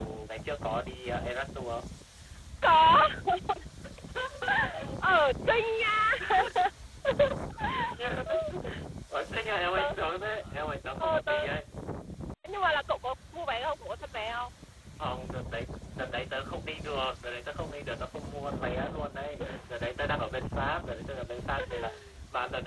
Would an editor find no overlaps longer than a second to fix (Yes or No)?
Yes